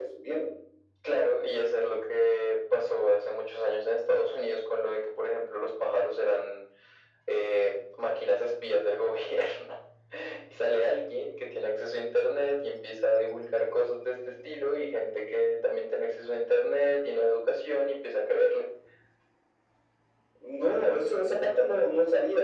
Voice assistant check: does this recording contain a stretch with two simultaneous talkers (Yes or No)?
No